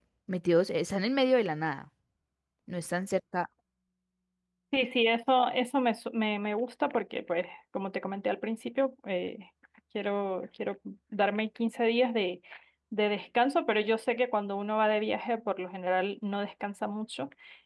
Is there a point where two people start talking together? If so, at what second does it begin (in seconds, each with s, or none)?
none